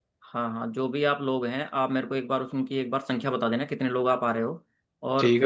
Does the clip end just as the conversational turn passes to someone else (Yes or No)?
No